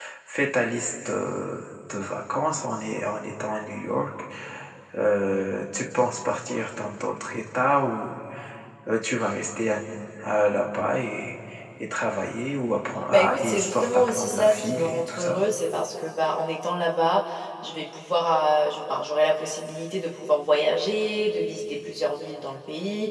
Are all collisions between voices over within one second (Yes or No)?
No